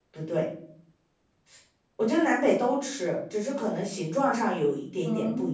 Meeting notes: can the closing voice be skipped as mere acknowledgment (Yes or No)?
No